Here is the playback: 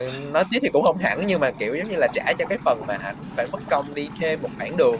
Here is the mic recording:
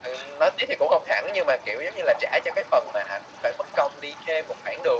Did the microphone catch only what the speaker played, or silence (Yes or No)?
Yes